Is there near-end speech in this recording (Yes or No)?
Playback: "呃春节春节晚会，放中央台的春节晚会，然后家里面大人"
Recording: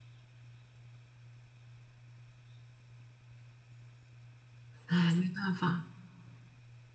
Yes